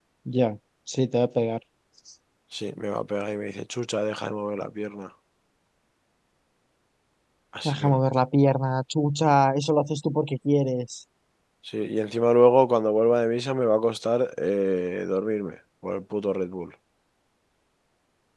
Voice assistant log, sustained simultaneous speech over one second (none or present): none